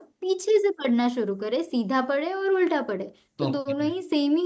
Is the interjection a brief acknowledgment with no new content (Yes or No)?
Yes